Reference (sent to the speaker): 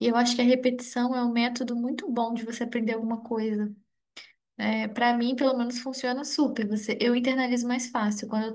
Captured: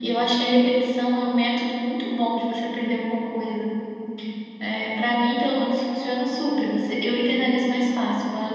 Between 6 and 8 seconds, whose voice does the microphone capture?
echo only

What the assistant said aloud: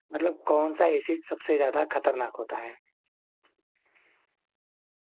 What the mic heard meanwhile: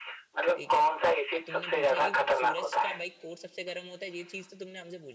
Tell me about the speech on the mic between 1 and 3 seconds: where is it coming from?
both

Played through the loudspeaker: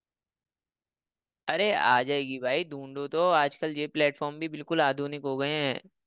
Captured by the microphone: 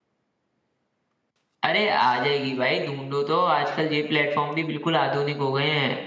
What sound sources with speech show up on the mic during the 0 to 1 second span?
neither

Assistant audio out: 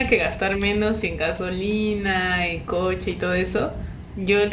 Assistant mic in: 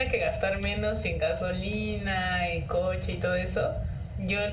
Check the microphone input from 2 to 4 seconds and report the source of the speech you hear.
echo only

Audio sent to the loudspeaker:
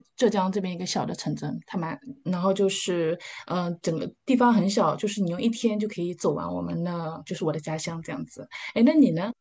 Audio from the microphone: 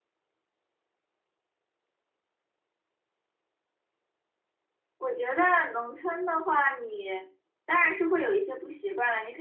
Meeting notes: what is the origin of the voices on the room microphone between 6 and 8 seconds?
user only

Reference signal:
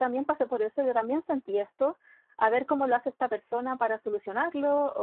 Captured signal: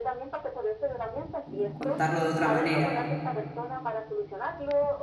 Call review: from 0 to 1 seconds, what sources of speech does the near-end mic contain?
echo only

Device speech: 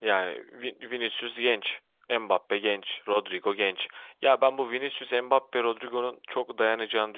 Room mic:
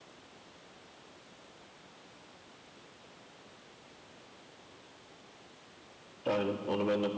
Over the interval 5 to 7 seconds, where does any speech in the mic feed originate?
user only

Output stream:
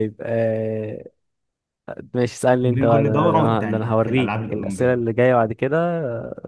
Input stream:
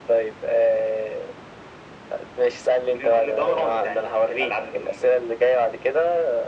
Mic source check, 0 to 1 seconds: echo only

